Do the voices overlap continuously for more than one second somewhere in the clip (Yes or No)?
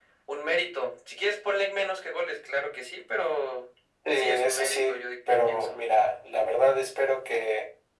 Yes